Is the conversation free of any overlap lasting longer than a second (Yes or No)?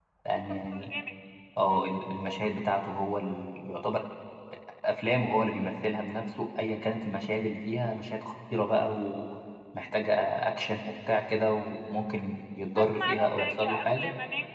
No